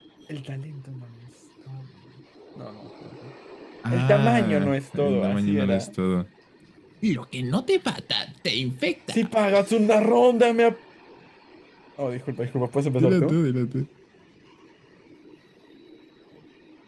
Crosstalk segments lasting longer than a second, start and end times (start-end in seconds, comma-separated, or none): 3.9-5.9